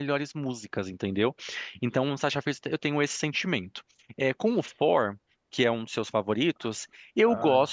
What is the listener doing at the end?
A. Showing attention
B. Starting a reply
A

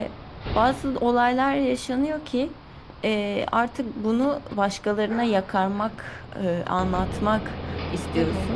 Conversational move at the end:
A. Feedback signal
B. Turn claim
A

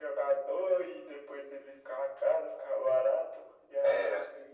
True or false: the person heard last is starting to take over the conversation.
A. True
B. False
B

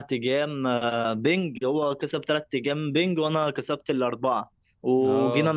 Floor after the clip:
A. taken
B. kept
B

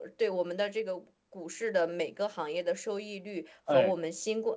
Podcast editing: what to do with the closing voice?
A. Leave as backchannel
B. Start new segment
A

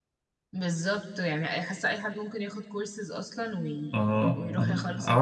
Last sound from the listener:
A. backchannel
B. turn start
B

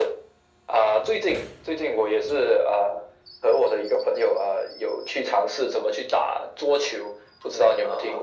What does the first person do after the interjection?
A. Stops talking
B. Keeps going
A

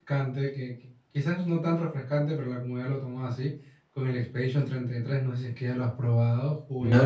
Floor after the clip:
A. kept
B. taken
B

